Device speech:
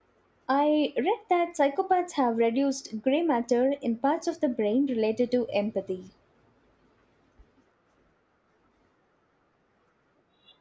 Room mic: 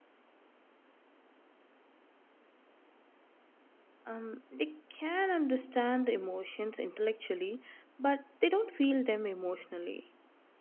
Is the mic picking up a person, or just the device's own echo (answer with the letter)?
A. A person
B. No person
A